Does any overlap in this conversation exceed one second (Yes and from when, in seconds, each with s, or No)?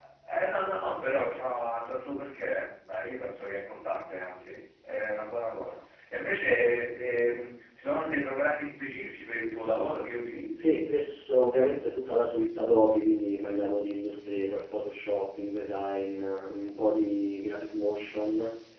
No